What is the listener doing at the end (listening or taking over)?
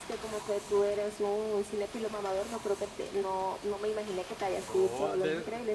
taking over